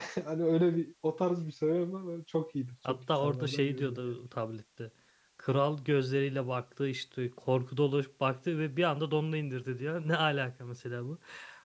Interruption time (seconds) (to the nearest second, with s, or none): 3 s